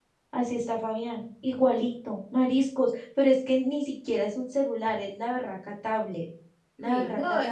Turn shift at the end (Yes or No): Yes